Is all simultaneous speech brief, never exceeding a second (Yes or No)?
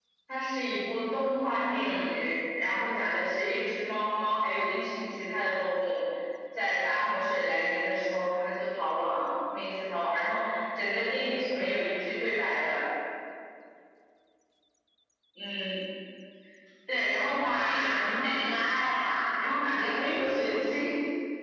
No